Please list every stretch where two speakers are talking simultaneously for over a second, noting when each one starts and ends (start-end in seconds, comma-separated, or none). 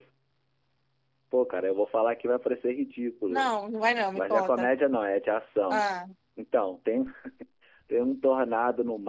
none